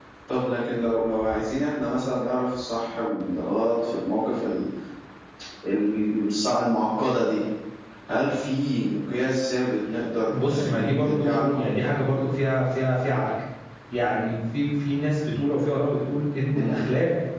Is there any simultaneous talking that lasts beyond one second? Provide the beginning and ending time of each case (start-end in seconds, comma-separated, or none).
10.3-11.6